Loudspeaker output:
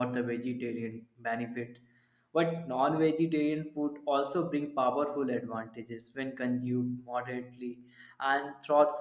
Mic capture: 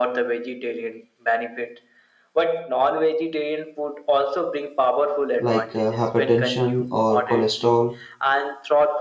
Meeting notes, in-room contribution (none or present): present